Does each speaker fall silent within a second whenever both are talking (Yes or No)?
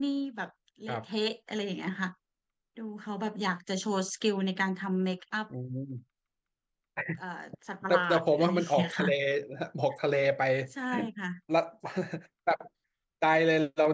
No